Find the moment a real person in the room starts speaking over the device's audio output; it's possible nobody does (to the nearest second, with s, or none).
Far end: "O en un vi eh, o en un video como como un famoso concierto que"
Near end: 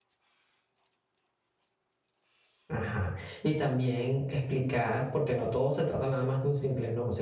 3 s